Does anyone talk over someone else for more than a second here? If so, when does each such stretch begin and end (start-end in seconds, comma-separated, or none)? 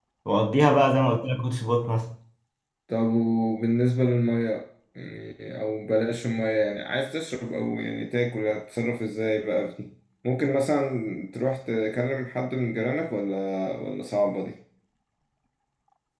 none